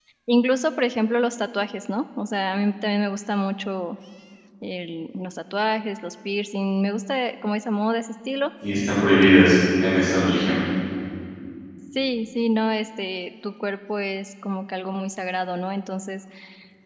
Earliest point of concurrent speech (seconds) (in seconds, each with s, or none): none